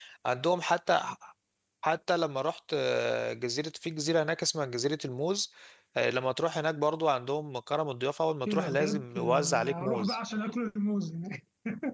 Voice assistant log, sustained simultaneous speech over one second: present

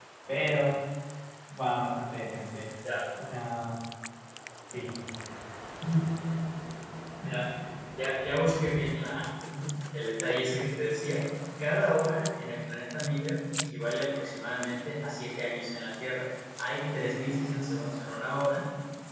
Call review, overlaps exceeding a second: none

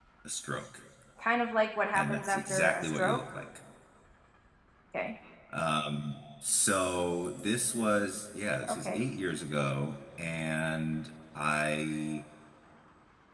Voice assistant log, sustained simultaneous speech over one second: present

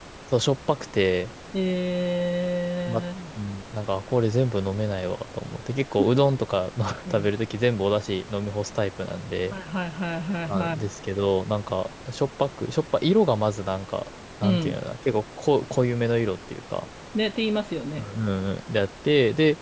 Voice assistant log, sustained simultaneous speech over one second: none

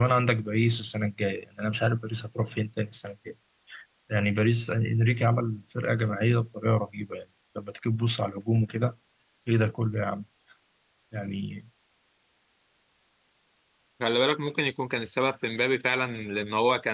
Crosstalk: none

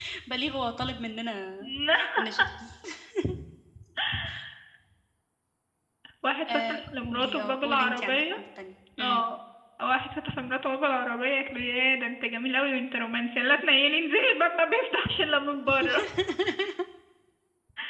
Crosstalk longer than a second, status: present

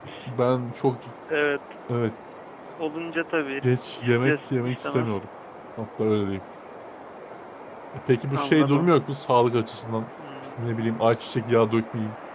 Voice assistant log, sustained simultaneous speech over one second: present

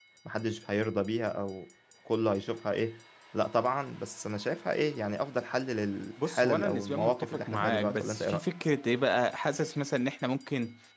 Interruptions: present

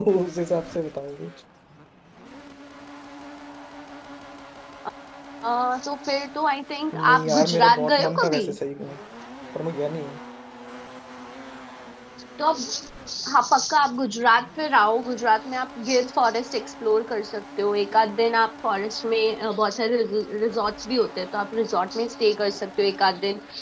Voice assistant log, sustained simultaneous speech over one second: present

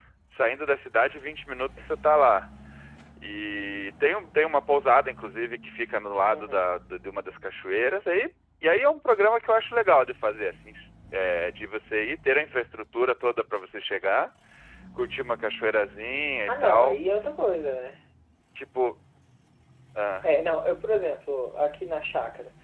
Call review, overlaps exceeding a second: none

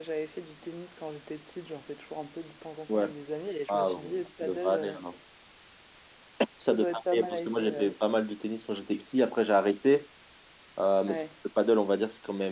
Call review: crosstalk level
present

